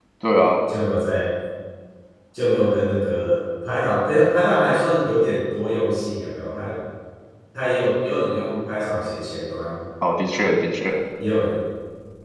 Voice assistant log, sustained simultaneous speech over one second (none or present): none